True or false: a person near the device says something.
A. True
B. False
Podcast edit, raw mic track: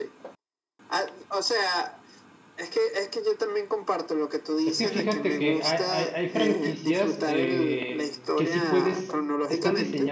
A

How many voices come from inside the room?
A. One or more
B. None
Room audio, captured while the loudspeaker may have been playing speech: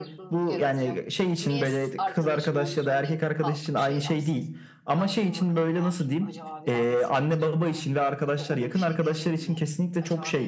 A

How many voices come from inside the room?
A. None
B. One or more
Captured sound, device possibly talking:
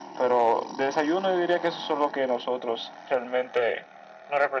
A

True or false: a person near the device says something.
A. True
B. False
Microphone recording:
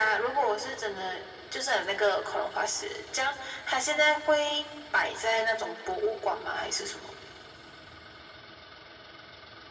B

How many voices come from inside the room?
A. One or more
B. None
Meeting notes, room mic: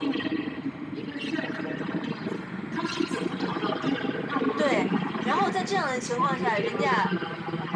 A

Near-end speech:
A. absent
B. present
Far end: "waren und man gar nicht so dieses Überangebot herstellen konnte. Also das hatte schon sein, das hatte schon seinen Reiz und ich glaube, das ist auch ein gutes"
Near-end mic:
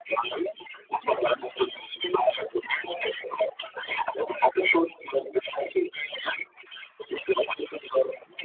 A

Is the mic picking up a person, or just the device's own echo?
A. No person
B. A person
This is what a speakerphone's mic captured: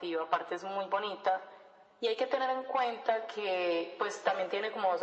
A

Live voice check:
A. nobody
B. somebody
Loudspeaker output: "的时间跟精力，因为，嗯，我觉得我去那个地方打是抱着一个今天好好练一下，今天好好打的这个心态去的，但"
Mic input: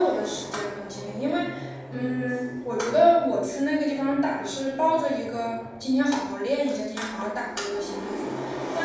B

